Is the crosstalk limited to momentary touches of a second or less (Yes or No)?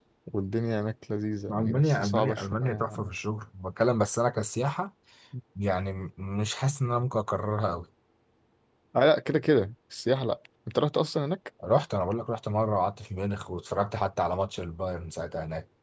No